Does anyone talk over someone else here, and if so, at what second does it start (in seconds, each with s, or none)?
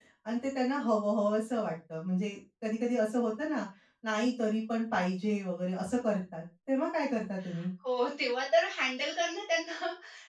none